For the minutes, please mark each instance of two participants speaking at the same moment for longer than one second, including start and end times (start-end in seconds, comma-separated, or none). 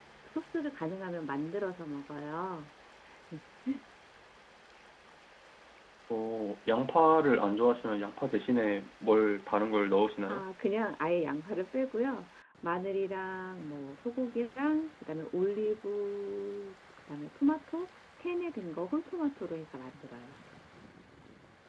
none